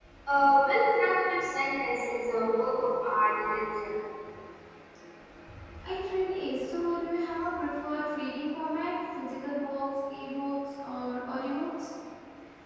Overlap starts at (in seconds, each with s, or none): none